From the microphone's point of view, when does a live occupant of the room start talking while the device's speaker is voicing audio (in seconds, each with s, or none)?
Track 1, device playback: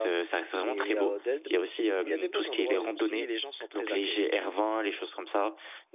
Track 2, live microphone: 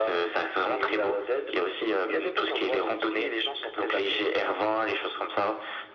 none